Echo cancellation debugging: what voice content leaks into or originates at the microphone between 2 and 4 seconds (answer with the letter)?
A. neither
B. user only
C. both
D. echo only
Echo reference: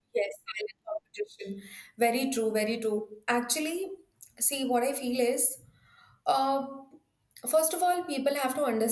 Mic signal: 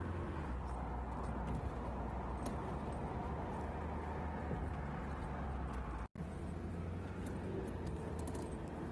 A